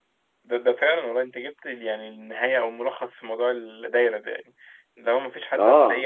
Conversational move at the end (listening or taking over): listening